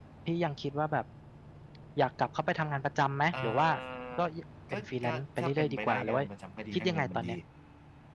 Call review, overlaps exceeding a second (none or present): present